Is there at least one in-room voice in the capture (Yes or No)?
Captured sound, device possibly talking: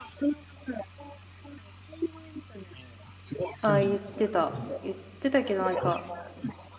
Yes